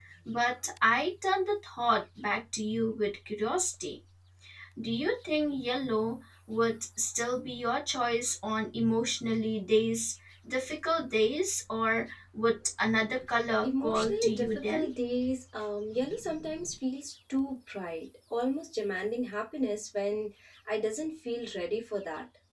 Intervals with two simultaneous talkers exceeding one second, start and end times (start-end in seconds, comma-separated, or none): 13.6-14.9